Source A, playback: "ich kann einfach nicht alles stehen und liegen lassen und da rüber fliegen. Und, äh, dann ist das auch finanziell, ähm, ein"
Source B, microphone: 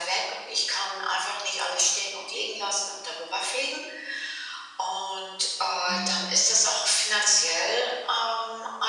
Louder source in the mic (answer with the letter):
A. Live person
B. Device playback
B